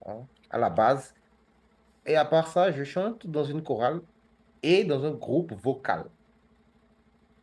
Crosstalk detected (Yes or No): No